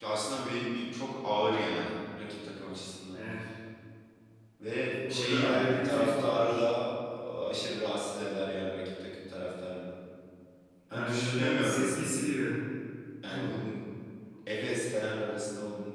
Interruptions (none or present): present